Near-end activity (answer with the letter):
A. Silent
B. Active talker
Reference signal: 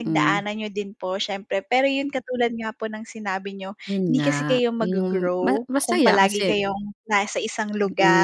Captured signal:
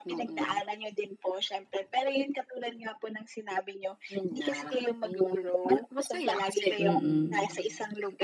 B